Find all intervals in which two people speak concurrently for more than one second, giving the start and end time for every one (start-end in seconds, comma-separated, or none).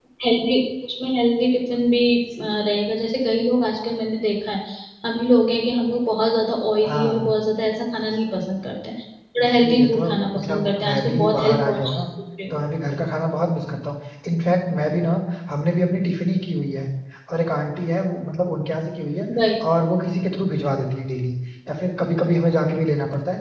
9.4-12.0